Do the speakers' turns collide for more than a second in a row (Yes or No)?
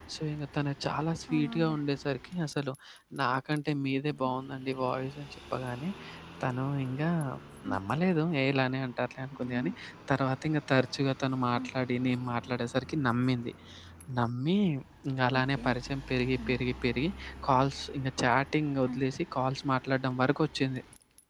No